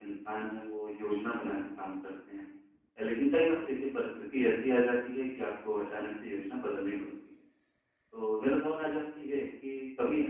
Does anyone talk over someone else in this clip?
No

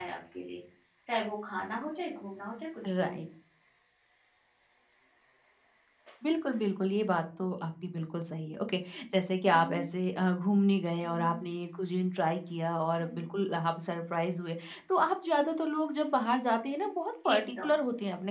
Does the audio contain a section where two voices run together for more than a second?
No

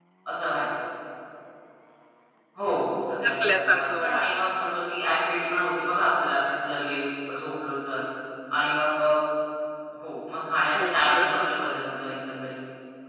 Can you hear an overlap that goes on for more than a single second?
Yes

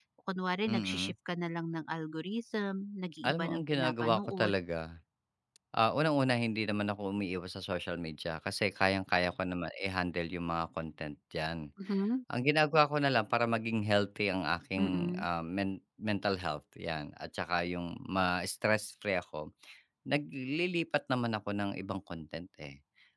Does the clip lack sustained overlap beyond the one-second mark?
No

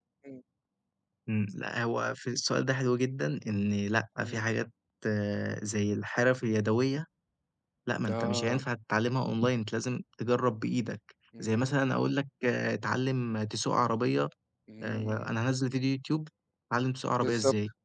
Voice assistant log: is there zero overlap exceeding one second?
Yes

